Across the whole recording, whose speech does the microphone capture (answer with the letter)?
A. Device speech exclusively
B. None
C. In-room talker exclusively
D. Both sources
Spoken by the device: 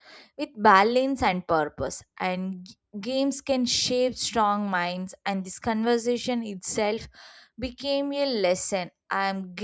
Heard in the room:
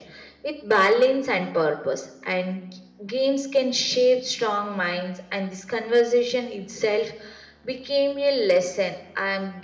A